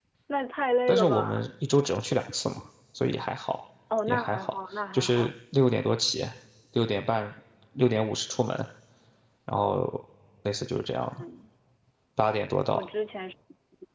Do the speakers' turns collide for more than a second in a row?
Yes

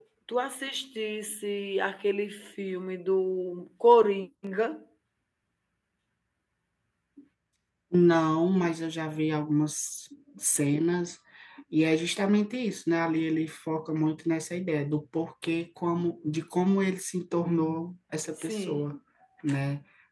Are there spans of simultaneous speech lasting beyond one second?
No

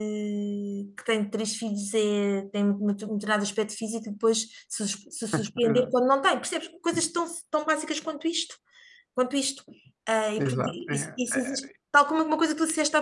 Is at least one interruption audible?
Yes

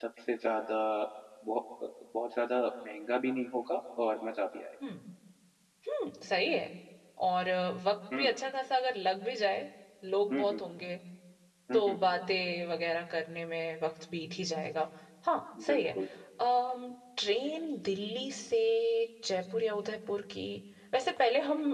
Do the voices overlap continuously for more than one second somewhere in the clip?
No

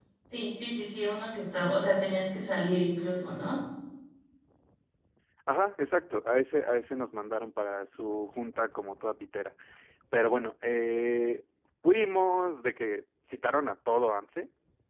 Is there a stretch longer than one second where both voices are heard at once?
No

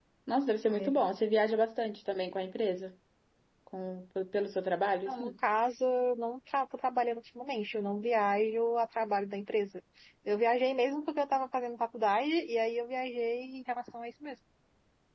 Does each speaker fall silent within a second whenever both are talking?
Yes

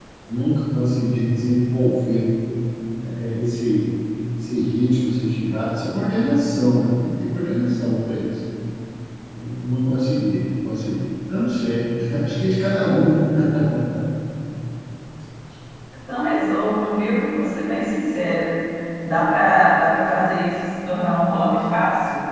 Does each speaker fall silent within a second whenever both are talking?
Yes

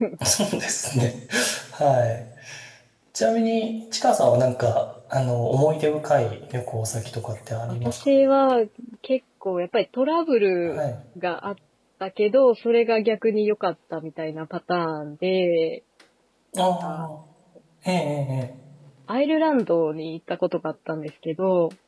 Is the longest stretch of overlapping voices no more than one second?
Yes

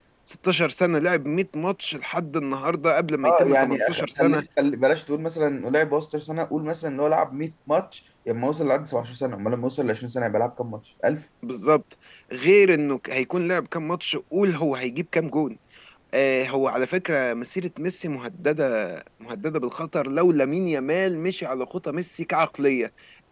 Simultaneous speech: Yes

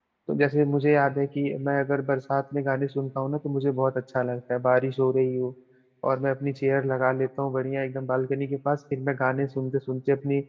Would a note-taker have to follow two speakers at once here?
No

